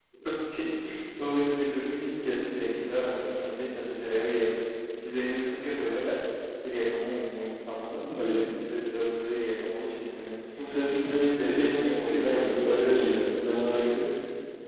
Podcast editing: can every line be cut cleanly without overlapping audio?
No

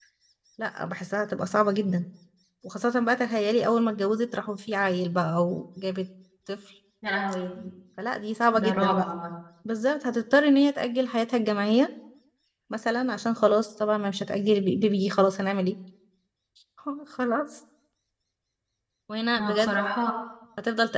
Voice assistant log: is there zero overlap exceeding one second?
Yes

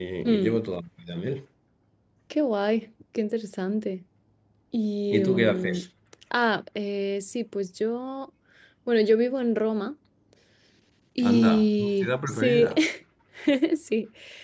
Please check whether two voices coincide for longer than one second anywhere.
Yes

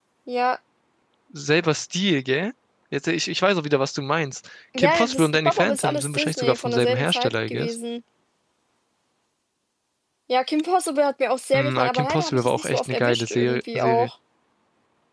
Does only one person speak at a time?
No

